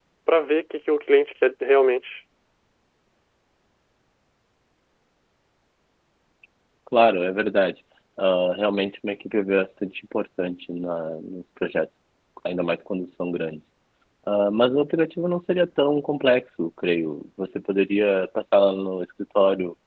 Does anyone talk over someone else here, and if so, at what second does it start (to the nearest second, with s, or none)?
none